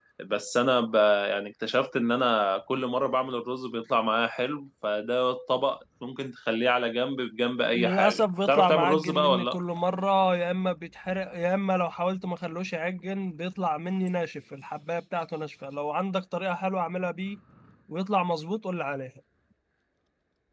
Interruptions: present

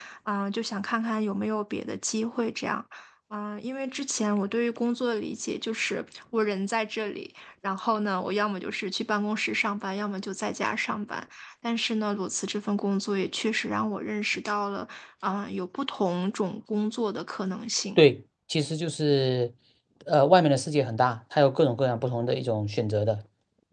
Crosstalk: none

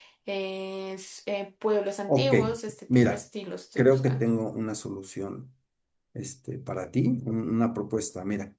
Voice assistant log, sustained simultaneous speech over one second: none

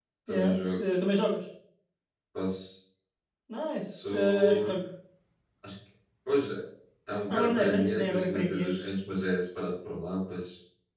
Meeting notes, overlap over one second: present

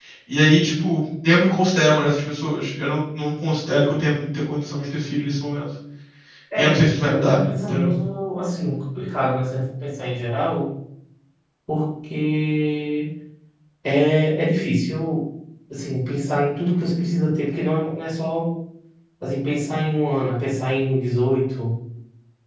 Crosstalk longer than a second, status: present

